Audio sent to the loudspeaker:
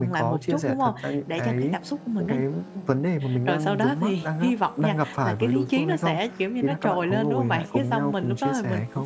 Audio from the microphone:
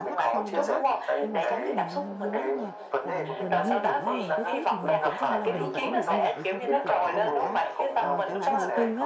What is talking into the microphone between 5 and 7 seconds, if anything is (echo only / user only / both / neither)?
both